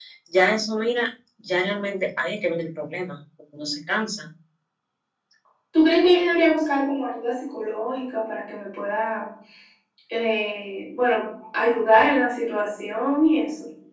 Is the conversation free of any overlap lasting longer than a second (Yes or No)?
Yes